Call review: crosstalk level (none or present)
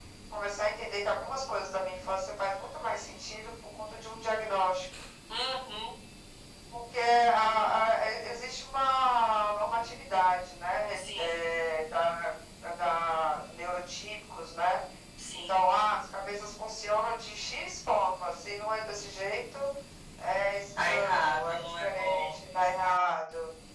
present